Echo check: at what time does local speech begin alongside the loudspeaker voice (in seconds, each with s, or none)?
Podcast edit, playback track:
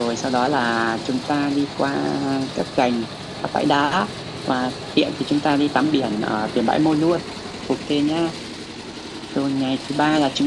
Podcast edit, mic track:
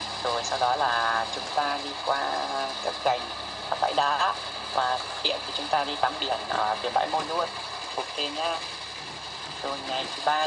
none